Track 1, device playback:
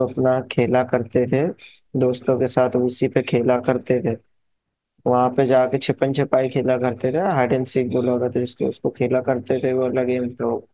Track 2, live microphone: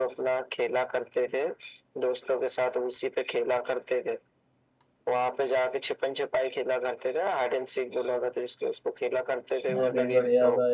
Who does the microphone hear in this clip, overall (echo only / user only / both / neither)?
both